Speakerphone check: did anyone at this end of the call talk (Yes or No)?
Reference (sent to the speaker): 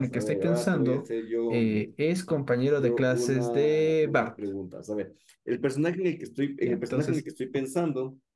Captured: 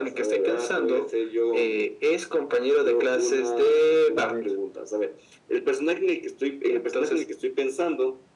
Yes